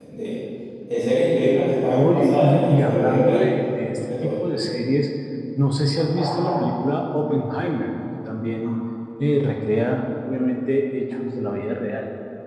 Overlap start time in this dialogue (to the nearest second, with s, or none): 2 s